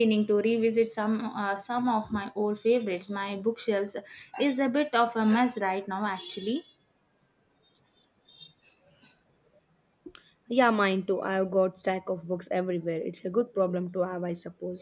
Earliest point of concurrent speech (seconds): none

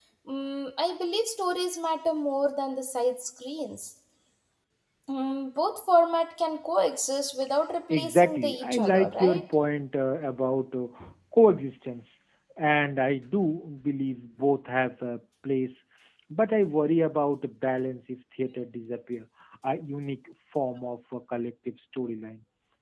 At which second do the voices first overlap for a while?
8 s

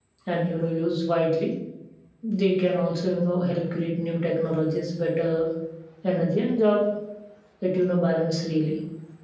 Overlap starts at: none

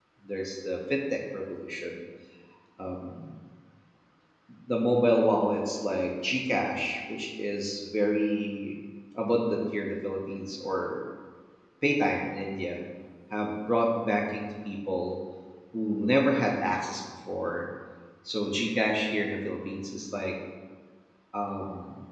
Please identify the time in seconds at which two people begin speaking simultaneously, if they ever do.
none

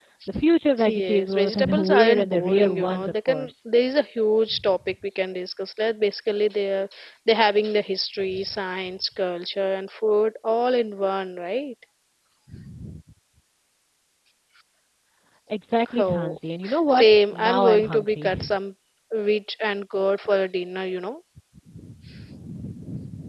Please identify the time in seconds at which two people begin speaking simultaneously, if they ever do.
1 s

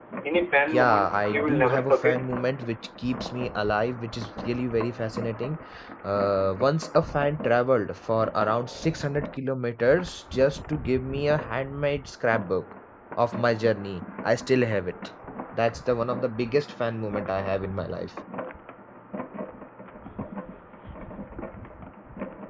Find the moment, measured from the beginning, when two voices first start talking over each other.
1 s

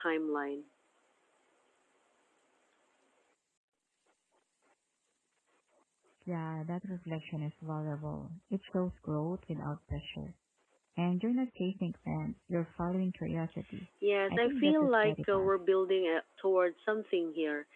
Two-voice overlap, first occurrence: 14 s

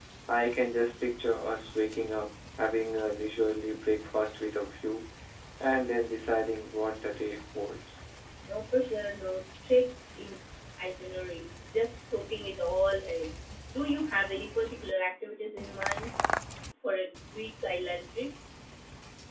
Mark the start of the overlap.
none

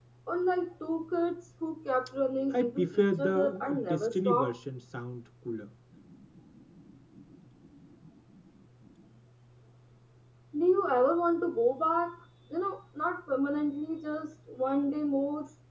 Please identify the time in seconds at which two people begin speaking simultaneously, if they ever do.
3 s

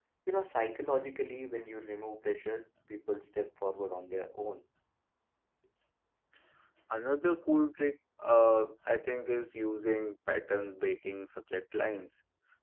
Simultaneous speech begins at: none

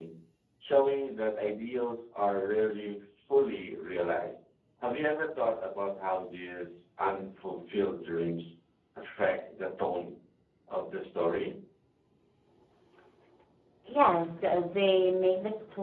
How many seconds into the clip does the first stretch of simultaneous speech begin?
none

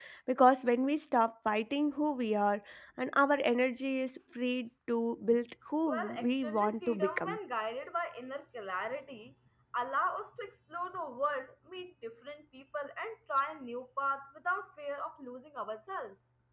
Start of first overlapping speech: 6 s

